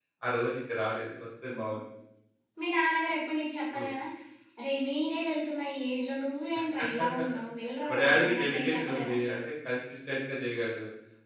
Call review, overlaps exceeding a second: present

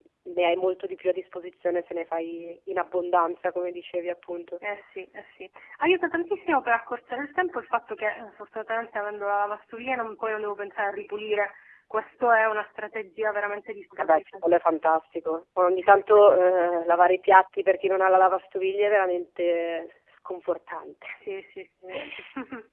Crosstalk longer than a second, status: none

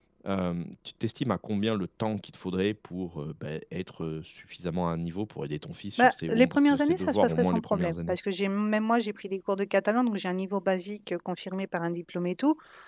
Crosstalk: present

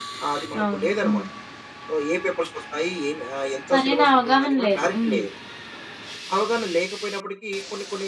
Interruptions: present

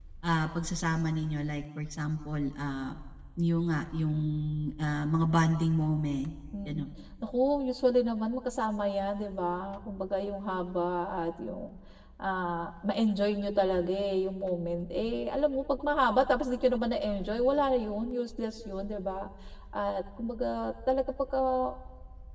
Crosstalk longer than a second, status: none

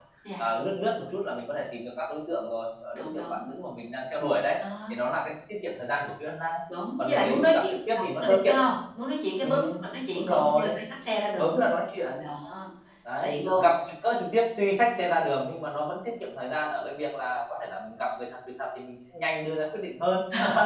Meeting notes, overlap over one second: present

